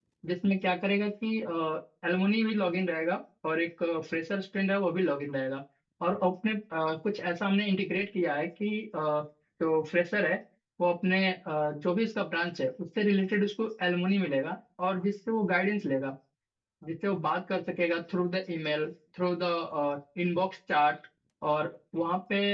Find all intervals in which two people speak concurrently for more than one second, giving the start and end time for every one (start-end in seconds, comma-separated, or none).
none